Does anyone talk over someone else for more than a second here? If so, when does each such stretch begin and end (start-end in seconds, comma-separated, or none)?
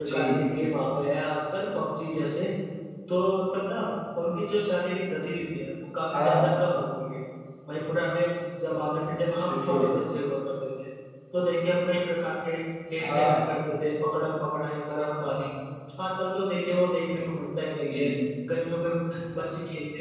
none